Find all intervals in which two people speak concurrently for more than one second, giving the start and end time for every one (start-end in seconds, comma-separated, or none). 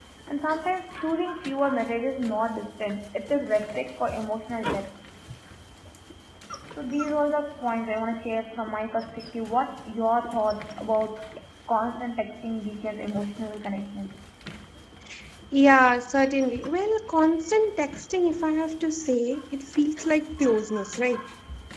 none